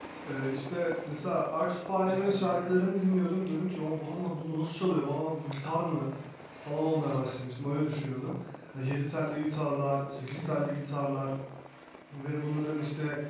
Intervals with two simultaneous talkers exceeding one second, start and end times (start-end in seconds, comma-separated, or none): 1.6-2.9